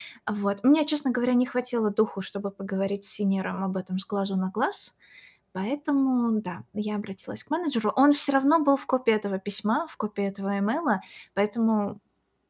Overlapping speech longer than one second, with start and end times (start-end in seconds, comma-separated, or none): none